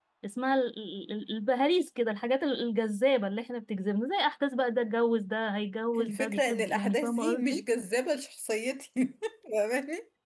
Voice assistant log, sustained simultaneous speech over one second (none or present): present